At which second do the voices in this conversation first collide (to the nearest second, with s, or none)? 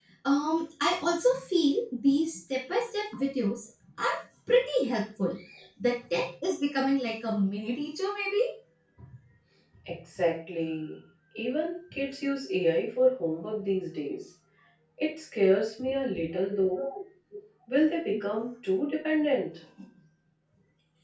none